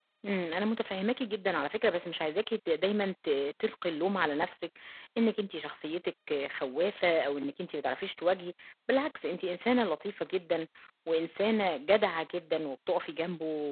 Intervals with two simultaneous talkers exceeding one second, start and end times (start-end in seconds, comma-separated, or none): none